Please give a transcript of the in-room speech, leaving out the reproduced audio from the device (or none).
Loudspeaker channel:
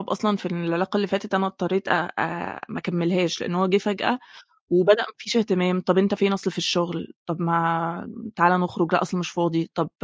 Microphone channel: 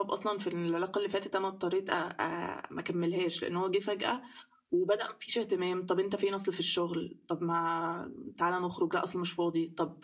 none